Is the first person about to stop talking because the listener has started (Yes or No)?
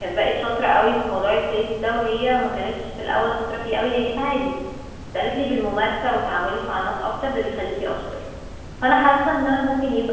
No